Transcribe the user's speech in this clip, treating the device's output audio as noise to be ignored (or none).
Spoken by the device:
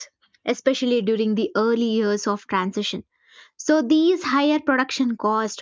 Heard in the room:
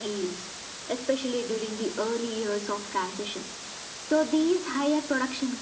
none